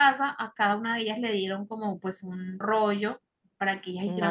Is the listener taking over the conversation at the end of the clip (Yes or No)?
No